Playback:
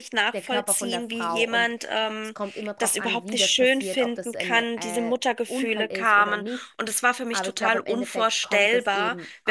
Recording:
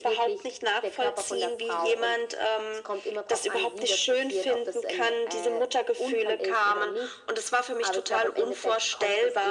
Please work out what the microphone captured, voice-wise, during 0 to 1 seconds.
echo only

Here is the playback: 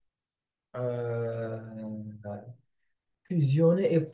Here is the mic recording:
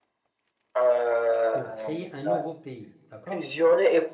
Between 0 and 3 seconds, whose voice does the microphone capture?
both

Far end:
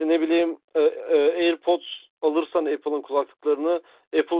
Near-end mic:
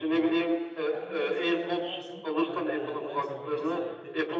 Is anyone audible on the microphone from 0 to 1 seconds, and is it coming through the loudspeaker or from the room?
both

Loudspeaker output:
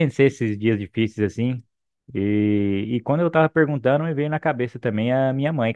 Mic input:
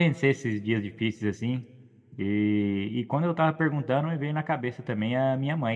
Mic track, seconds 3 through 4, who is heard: echo only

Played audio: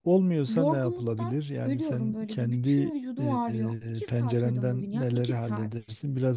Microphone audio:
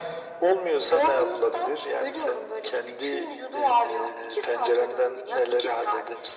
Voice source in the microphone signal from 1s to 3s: echo only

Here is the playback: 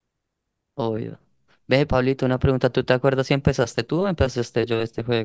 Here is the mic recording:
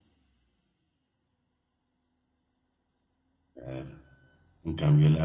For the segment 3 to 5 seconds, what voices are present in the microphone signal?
user only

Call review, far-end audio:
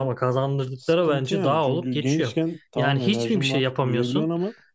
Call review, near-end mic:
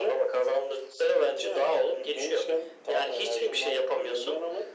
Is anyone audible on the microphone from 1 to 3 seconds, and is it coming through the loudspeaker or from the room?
echo only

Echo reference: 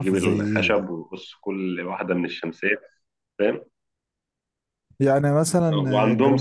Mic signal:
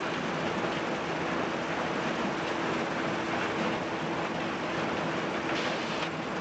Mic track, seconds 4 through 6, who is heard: neither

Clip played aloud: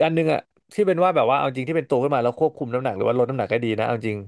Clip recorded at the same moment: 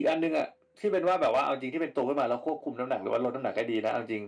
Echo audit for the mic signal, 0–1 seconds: echo only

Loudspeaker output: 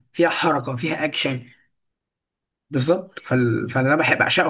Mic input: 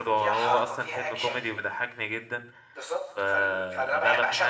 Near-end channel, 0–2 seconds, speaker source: both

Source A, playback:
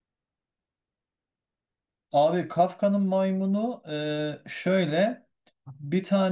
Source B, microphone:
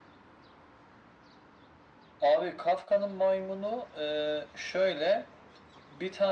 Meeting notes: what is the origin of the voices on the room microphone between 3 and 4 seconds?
echo only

